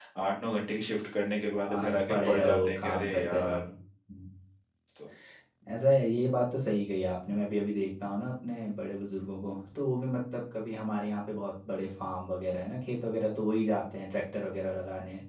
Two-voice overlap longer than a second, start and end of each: 1.7-3.7

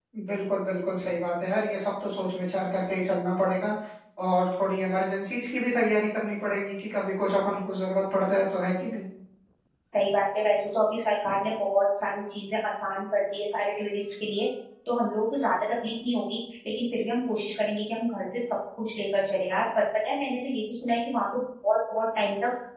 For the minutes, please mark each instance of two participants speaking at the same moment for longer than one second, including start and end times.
none

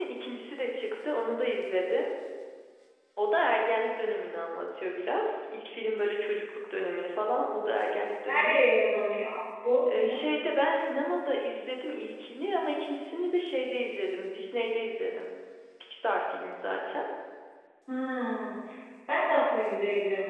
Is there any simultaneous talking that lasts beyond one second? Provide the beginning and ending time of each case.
none

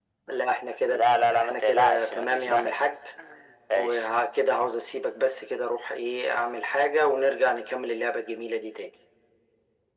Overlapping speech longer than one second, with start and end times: 0.9-2.8

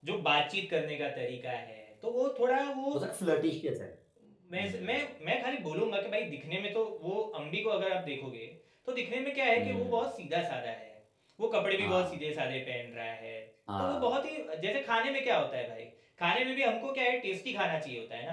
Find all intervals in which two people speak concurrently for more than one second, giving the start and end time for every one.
none

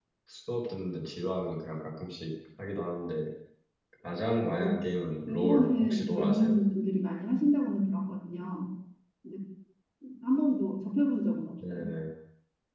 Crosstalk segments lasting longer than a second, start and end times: 5.3-6.6

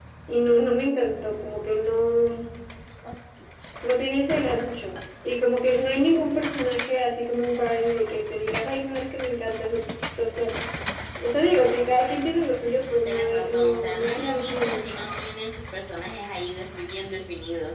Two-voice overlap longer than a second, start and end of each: 13.1-14.8

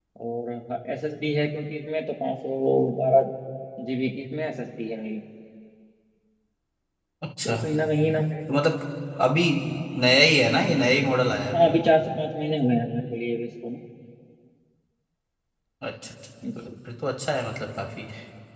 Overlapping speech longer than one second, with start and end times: none

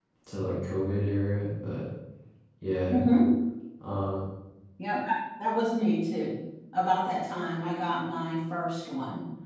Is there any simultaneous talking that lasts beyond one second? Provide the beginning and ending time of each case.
none

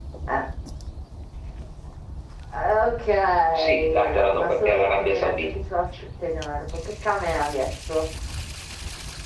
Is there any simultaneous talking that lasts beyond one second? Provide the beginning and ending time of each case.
3.6-5.3

